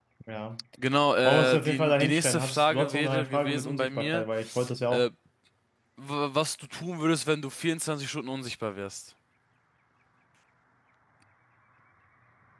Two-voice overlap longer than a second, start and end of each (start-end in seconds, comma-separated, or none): 1.2-4.2